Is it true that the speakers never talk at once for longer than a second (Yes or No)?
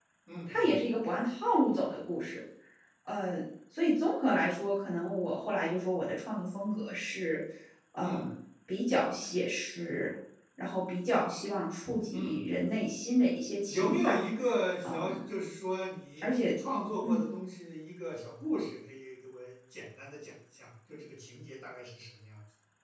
Yes